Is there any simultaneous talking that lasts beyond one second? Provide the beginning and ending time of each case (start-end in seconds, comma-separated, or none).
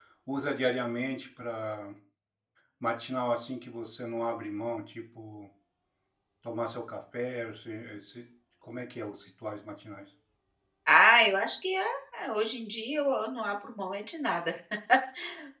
none